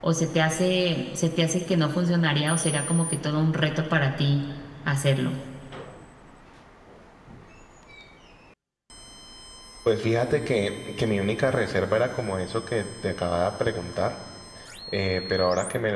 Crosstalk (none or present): none